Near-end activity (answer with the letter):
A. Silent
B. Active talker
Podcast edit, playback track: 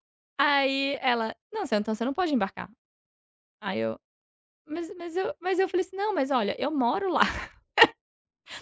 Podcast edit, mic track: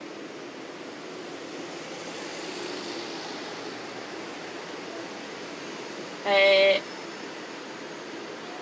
B